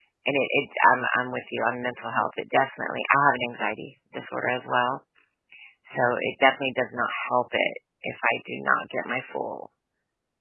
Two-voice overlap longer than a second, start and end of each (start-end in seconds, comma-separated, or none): none